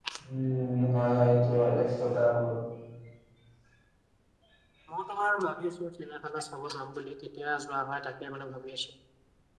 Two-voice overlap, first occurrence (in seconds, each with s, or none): none